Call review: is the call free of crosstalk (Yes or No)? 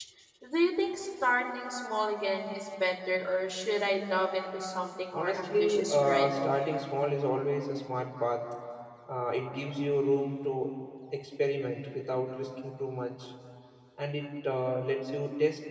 No